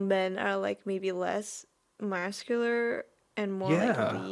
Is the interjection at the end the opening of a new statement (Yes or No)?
Yes